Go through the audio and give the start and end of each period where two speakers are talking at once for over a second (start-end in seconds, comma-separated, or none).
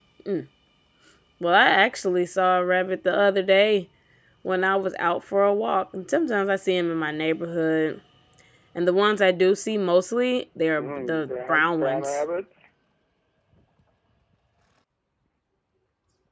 10.8-12.2